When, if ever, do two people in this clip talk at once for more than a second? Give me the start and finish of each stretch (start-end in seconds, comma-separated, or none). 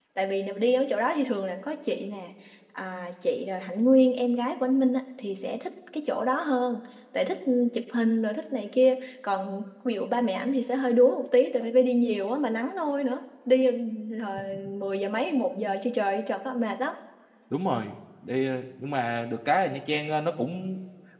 none